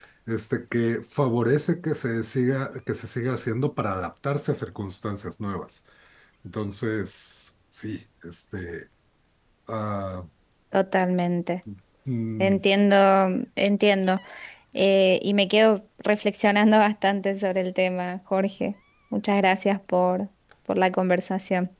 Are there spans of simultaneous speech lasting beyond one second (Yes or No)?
No